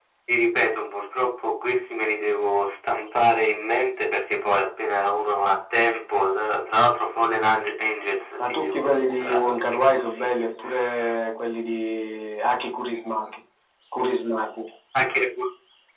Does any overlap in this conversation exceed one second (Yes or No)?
Yes